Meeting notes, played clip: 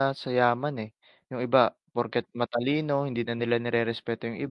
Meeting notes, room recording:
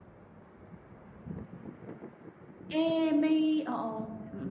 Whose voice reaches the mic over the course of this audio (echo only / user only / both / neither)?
user only